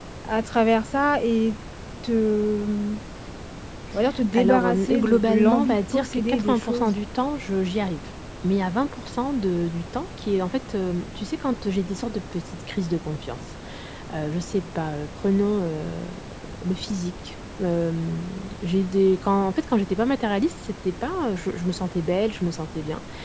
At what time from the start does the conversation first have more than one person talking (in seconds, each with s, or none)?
4.3 s